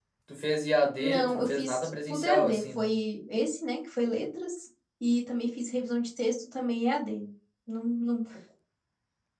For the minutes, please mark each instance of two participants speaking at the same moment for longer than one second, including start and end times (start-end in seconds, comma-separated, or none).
1.0-2.9